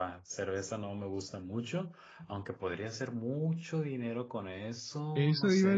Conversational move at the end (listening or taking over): taking over